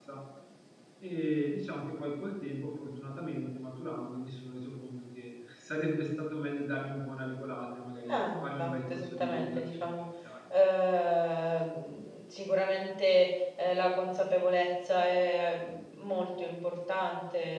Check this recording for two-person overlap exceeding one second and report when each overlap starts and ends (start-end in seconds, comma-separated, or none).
8.1-10.0